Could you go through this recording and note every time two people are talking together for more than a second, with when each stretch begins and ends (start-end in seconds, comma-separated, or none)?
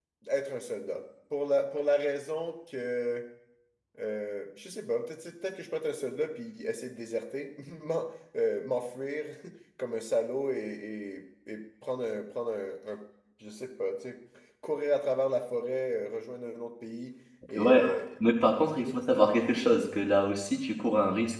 none